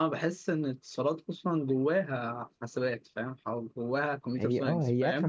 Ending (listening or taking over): taking over